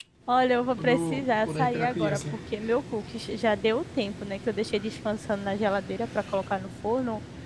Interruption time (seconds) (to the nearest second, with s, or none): 1 s